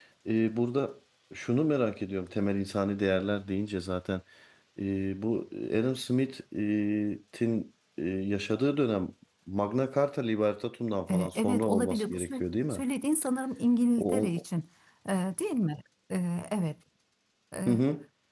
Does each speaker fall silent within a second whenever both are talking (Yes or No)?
No